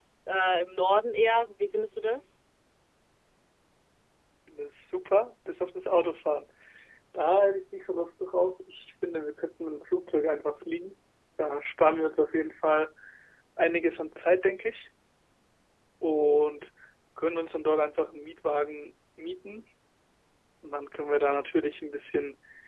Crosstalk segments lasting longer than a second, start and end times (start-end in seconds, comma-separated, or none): none